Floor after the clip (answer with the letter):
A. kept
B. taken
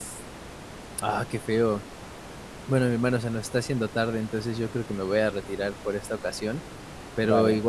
A